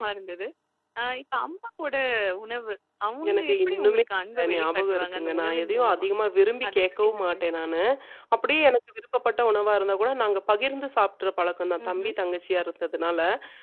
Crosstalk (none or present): present